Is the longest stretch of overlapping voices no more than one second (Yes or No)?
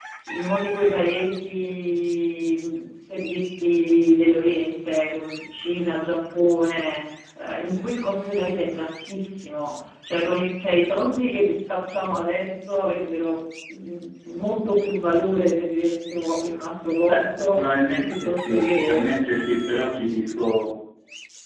No